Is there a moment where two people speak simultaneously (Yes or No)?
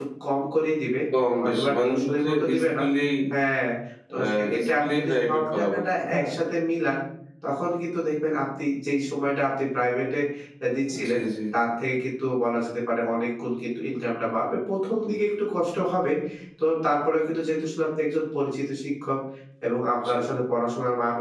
Yes